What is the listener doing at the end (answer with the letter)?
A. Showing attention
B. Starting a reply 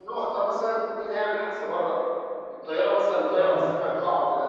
A